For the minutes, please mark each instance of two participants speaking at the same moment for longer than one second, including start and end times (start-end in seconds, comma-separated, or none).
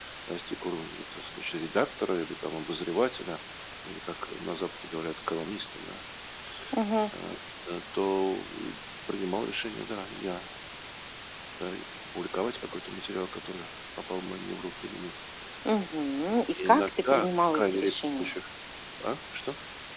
16.6-18.3